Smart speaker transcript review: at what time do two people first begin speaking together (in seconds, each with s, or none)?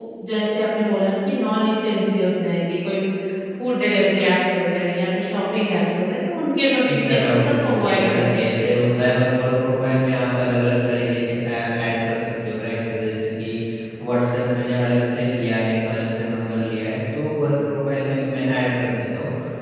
6.8 s